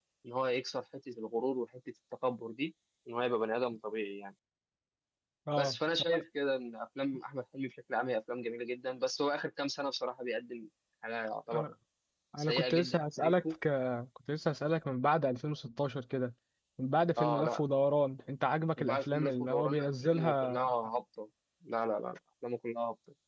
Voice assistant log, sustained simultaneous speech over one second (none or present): present